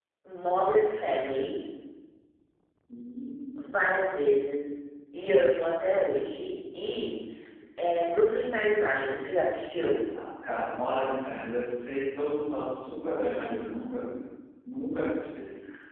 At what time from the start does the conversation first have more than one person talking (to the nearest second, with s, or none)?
none